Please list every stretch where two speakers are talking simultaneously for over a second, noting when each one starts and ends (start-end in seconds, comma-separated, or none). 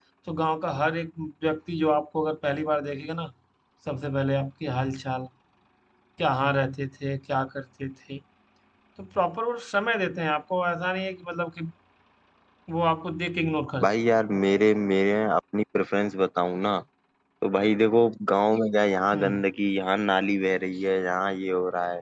none